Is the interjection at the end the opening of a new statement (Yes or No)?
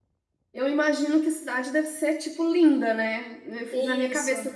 No